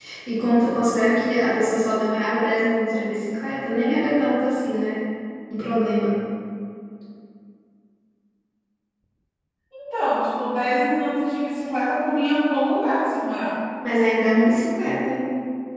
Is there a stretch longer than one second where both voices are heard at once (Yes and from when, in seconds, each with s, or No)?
No